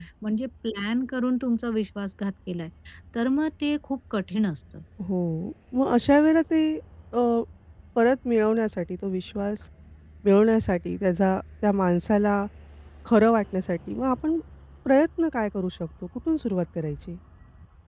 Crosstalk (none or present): none